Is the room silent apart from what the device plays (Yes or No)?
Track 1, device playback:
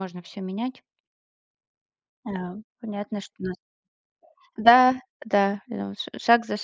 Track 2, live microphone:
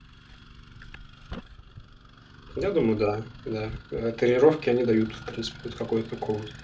No